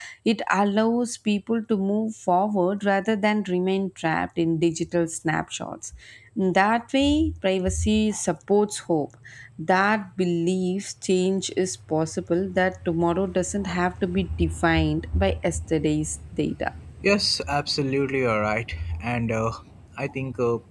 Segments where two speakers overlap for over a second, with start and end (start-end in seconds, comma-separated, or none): none